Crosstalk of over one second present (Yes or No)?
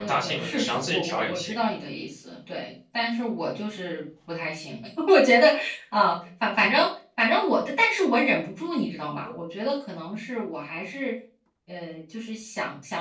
Yes